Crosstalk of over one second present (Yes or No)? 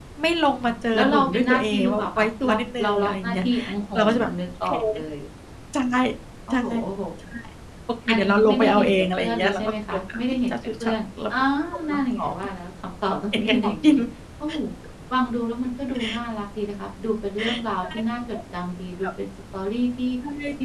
Yes